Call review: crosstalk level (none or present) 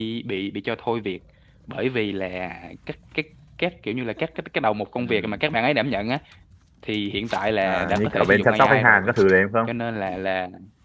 present